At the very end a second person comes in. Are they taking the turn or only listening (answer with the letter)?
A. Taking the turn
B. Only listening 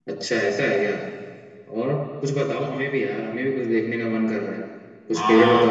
B